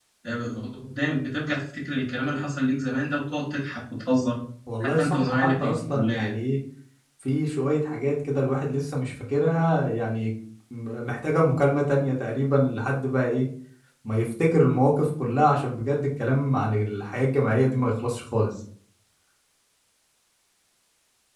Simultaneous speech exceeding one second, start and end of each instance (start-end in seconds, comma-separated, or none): 4.8-6.3